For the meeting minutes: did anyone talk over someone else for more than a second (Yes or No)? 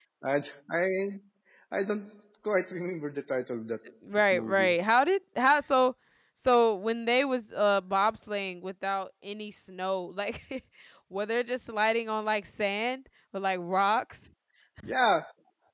No